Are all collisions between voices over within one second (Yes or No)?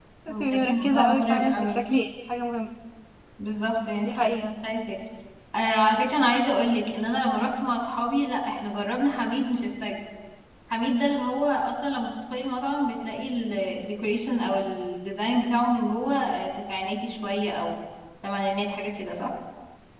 No